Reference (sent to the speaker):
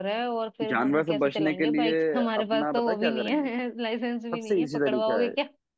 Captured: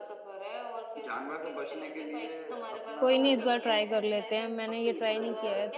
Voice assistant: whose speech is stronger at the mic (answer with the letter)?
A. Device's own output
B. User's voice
B